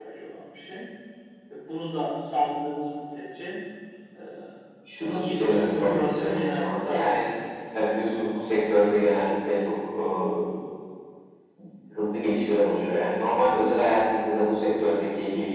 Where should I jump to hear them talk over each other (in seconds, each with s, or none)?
5.2 s